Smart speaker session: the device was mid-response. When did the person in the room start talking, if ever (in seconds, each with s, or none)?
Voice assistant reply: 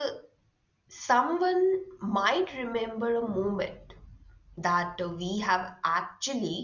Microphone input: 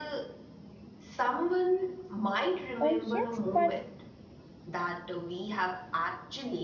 2.8 s